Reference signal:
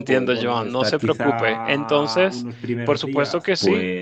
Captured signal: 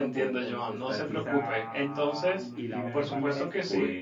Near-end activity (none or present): present